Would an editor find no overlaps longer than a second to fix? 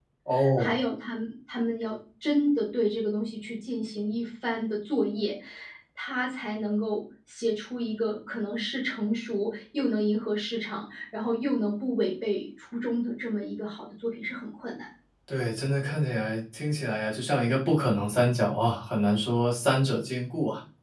Yes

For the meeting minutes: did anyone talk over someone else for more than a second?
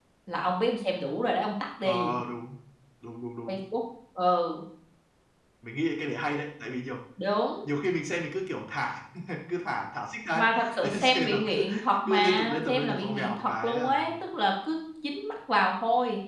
Yes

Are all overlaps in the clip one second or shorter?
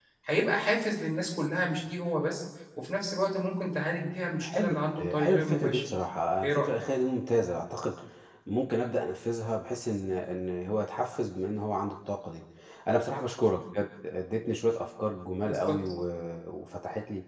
No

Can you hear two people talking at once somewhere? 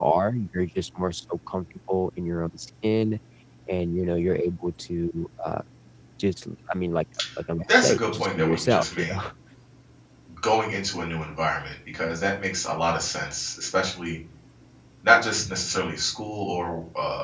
Yes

